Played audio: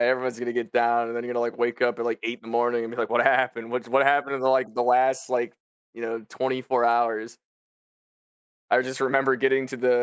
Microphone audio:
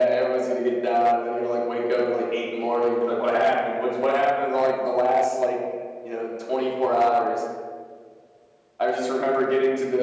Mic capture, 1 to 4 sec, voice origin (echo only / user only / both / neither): echo only